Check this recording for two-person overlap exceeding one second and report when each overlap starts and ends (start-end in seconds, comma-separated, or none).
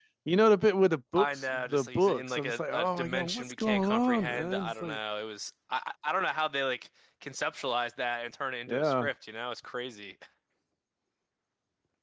1.2-5.0